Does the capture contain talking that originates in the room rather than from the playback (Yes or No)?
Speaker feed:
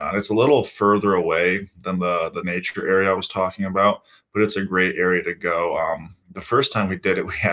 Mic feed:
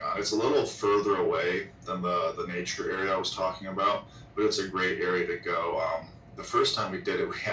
No